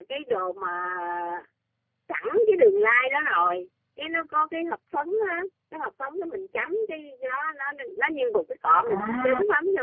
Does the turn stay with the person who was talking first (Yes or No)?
Yes